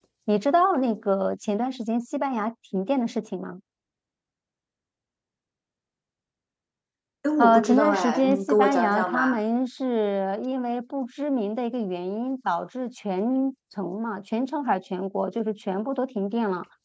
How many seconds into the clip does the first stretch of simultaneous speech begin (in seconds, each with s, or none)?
7.4 s